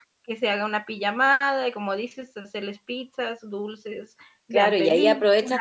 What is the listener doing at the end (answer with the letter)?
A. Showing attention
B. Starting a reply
B